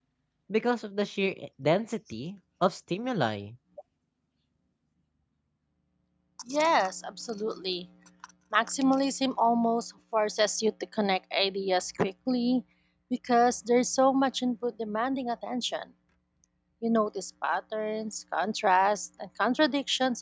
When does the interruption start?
none

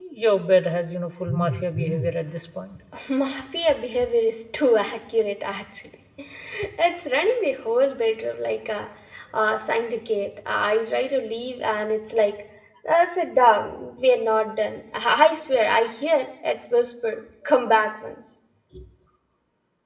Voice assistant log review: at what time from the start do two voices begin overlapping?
none

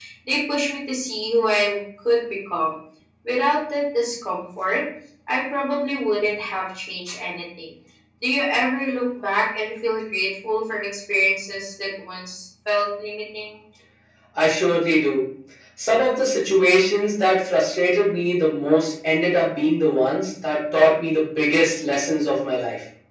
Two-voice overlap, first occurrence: none

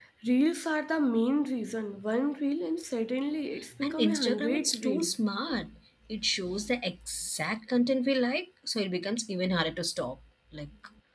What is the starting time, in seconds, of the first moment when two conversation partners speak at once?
3.8 s

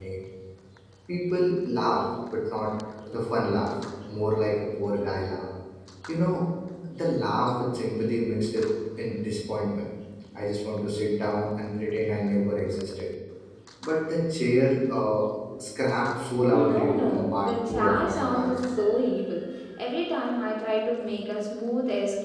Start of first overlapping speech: 16.5 s

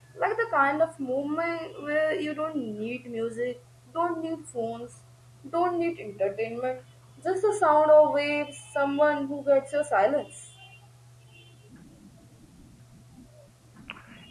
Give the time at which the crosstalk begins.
none

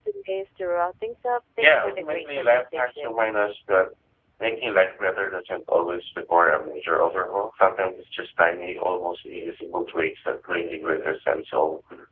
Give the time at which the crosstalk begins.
1.6 s

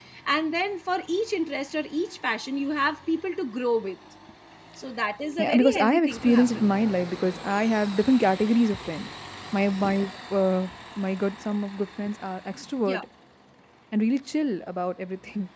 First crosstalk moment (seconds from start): 5.4 s

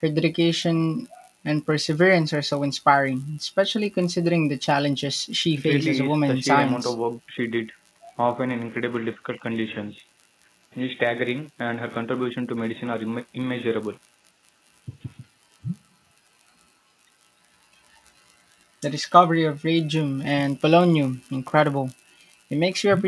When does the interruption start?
5.5 s

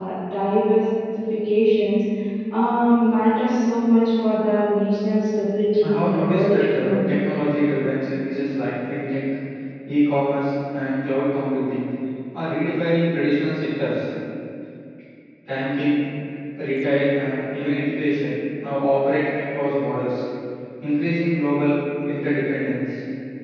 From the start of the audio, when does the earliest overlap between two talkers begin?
5.7 s

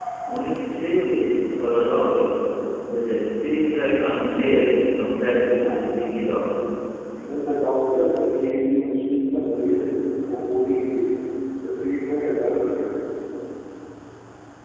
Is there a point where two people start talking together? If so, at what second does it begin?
none

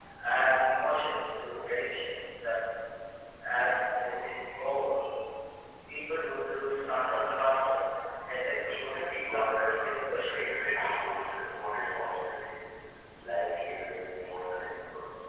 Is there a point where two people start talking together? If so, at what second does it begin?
8.8 s

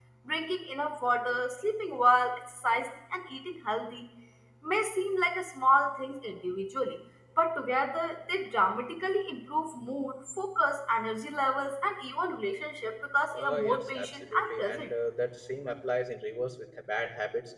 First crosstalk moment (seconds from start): 13.3 s

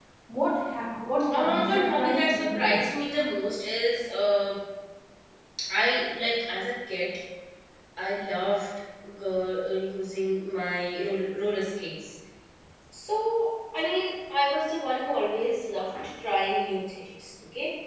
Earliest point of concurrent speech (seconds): 1.3 s

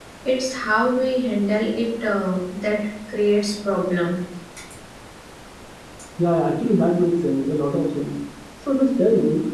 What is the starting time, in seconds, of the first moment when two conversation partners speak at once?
none

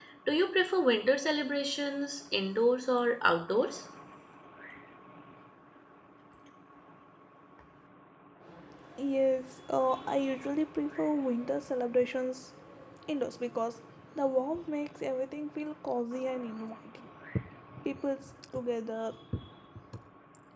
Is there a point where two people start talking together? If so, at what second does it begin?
none

